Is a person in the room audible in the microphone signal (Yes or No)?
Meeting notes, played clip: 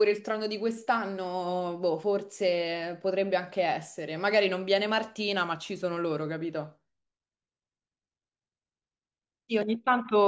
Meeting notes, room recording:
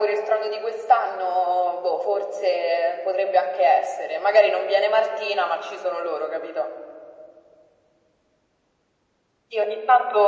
No